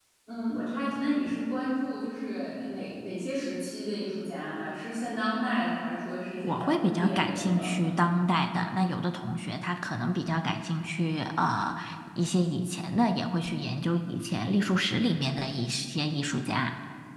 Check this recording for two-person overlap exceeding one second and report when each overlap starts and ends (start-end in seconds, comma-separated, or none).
6.4-7.9